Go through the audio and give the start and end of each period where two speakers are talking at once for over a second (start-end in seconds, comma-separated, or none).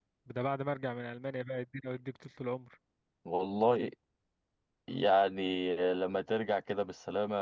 none